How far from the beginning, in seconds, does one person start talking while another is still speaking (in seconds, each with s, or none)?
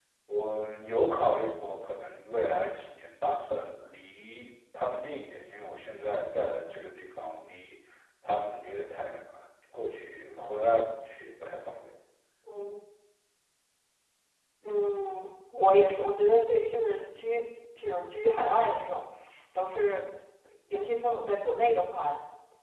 none